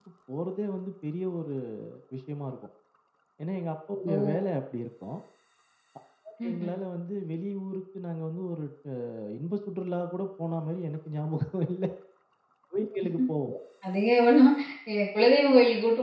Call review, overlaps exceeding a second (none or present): none